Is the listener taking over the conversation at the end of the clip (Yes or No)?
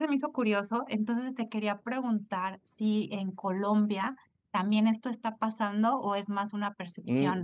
Yes